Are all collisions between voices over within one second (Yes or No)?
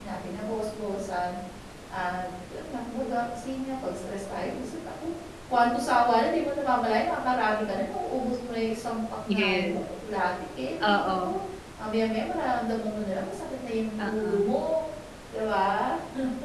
Yes